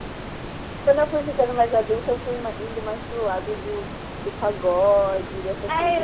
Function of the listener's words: taking over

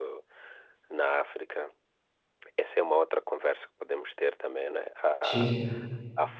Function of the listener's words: listening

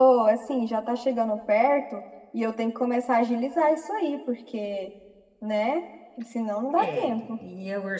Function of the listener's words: taking over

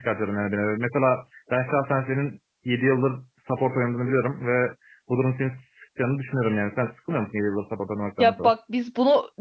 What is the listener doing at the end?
taking over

